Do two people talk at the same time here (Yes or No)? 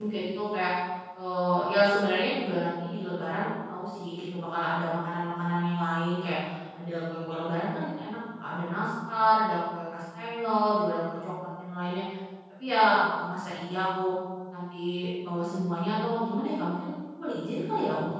No